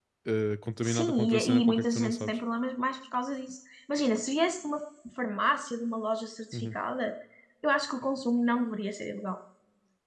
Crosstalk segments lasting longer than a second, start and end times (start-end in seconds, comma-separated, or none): 0.8-2.4